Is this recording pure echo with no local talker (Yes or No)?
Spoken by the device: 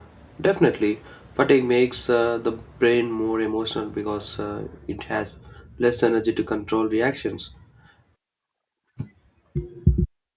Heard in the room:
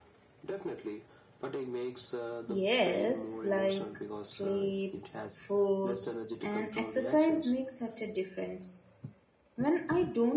No